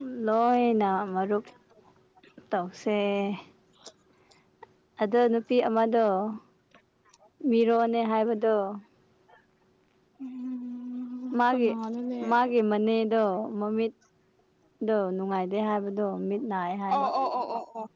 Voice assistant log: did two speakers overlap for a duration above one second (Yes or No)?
No